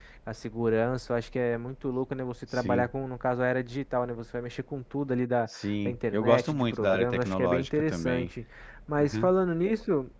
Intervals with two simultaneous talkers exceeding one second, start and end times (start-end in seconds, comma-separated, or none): 5.5-8.3